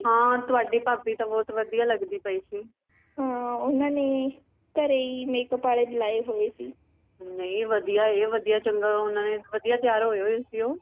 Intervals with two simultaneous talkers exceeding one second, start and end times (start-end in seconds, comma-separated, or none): none